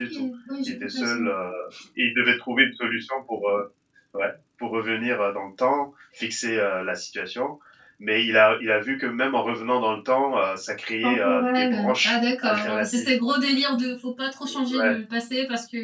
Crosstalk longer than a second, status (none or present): present